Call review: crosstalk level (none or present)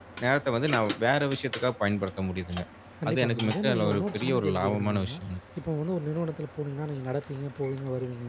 present